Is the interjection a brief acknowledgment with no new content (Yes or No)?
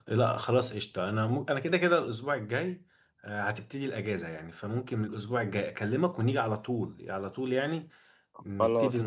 No